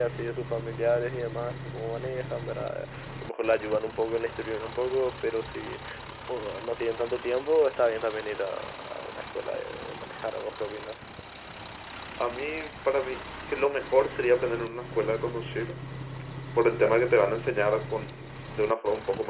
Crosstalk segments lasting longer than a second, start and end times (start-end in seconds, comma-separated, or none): none